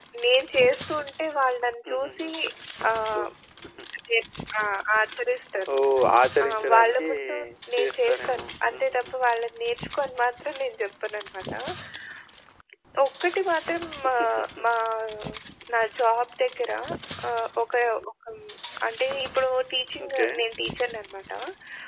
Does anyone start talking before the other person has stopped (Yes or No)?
Yes